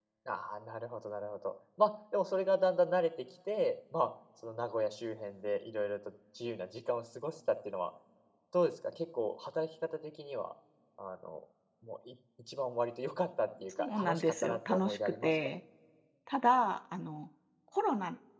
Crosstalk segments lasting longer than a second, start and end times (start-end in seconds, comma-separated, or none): 13.8-15.5